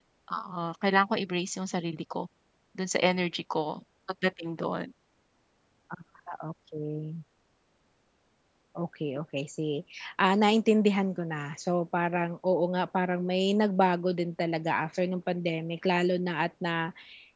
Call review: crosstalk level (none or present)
none